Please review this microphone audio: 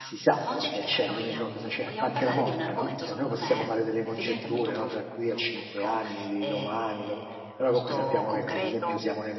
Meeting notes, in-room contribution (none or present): present